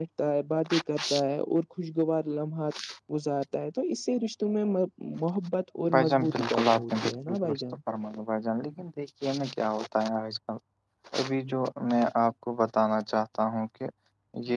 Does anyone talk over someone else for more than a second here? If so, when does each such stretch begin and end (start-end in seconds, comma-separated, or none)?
5.9-7.6